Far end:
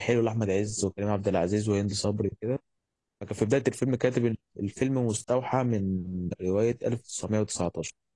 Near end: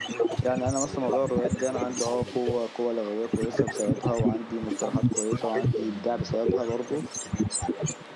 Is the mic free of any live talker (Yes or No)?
No